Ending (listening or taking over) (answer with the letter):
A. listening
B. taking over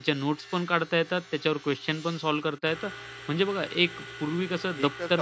B